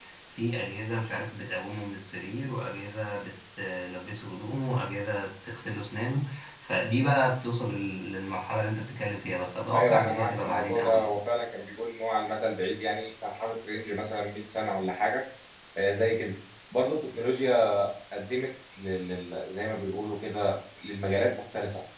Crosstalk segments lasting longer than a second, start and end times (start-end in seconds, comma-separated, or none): 9.7-11.1